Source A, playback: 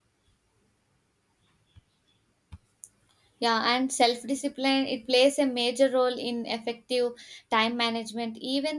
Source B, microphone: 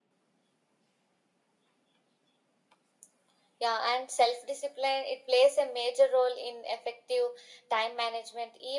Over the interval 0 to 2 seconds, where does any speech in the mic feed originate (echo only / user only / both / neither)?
neither